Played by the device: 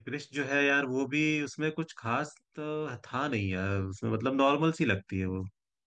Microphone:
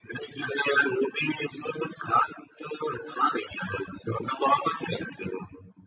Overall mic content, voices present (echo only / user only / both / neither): echo only